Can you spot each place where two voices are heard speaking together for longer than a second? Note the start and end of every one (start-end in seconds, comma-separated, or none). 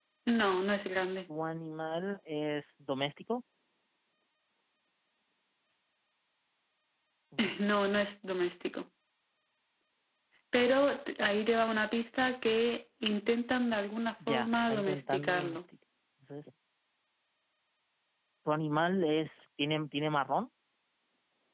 14.3-15.6